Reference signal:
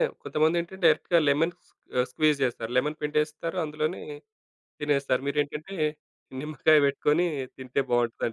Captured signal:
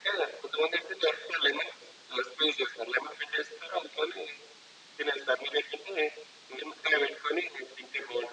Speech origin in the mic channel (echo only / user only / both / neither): echo only